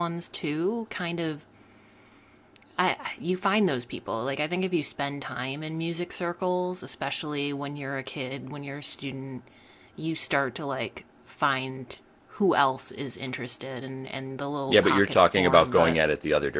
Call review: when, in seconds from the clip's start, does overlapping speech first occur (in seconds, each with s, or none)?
14.7 s